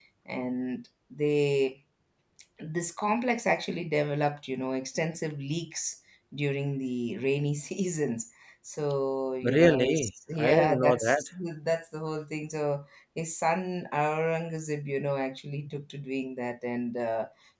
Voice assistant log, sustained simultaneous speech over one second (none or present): present